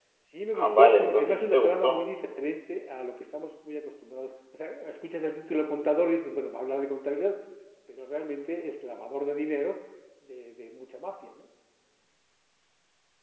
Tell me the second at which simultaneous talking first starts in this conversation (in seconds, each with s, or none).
0.5 s